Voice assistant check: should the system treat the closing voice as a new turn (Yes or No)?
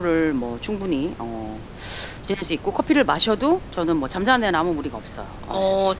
No